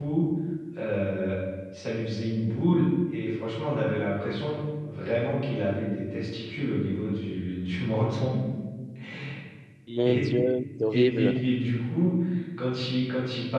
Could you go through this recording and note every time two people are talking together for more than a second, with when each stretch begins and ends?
none

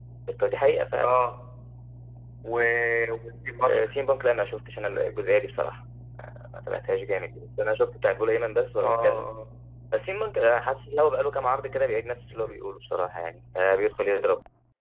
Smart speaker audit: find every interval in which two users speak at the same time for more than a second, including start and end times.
none

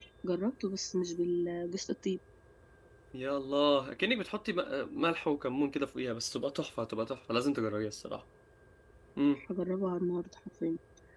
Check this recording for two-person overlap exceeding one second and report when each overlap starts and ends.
none

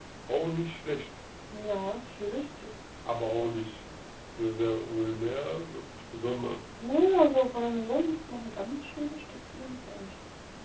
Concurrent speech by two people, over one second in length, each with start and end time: none

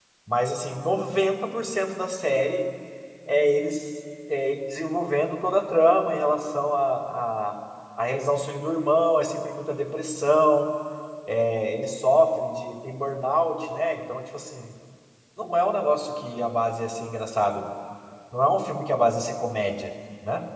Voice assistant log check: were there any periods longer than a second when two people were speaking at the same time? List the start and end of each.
none

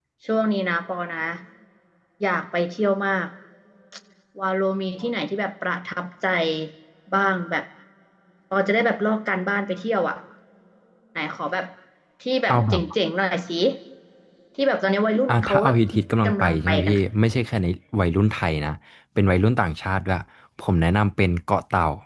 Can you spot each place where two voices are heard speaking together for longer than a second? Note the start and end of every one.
15.3-17.0

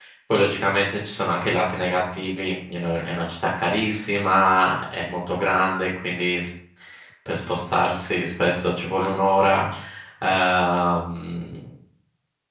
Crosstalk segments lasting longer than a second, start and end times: none

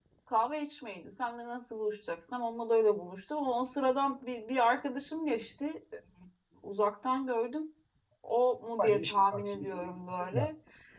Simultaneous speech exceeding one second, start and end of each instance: 8.8-10.5

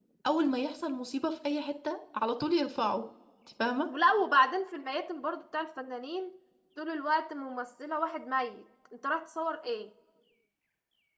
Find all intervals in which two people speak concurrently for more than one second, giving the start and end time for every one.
none

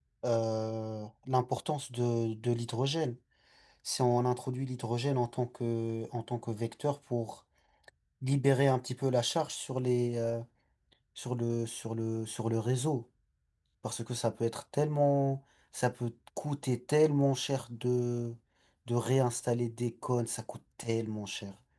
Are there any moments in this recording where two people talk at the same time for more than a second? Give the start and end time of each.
none

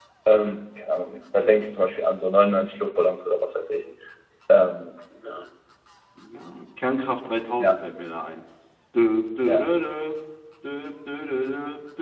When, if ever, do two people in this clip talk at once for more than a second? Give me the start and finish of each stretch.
none

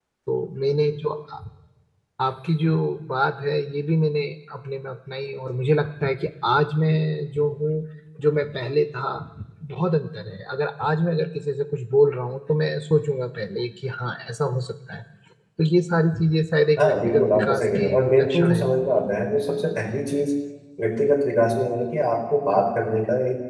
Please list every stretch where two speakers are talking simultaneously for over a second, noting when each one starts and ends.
16.8-18.6

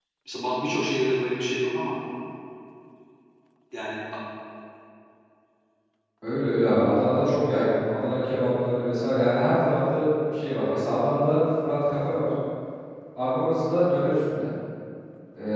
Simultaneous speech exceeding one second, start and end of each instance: none

